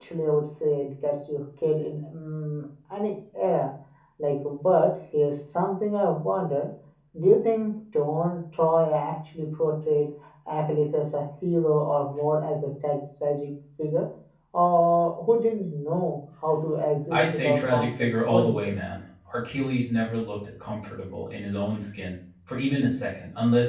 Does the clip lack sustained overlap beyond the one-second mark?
No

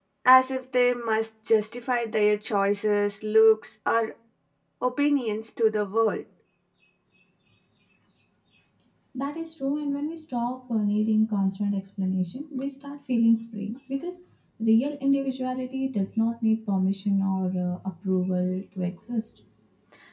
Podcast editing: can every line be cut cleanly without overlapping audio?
Yes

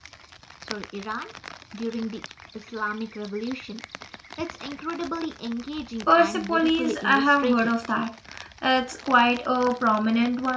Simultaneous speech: Yes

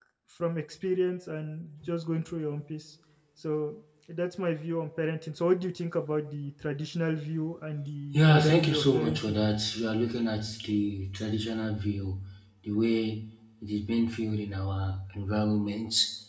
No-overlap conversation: No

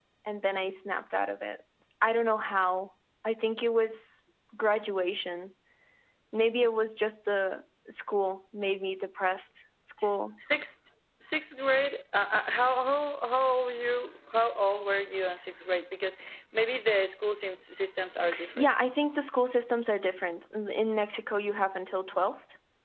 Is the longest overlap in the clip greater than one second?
No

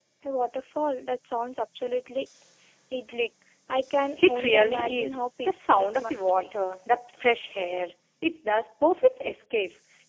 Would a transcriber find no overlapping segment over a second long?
No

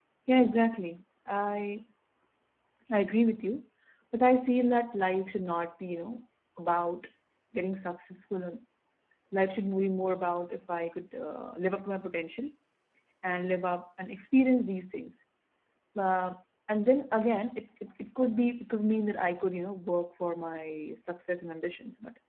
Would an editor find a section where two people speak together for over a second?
No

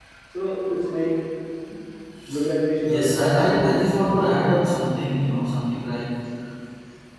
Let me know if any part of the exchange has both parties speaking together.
Yes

